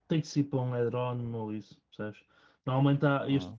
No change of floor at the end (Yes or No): Yes